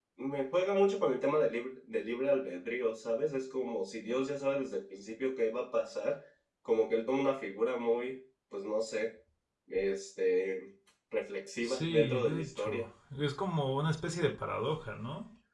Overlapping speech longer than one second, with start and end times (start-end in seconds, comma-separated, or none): 11.6-12.8